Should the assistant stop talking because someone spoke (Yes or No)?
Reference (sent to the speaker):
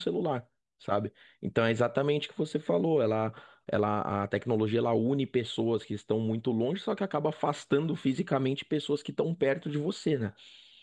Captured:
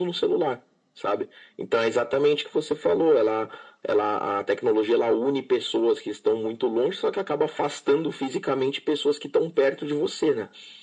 No